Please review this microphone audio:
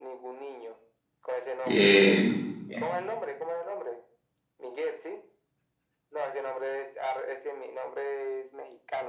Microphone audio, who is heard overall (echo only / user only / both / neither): both